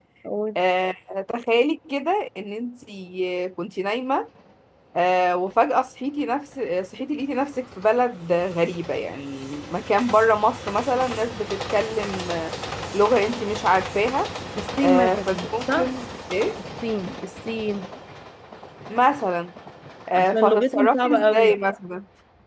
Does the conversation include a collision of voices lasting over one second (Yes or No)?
Yes